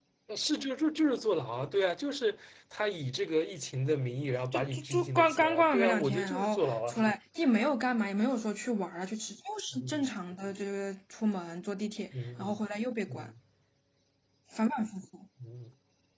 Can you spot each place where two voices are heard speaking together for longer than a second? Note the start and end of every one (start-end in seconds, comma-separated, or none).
4.5-7.0